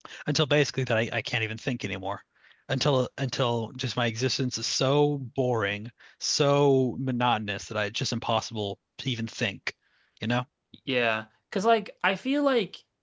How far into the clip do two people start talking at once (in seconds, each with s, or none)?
none